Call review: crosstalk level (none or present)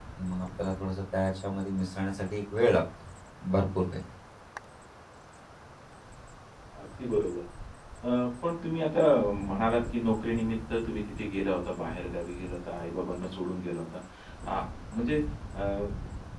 none